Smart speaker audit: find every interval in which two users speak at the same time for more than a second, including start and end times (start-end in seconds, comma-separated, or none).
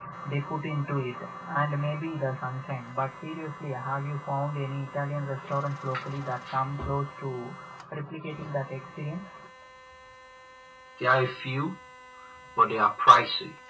none